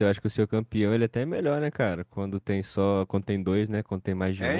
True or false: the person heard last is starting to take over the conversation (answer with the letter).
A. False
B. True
B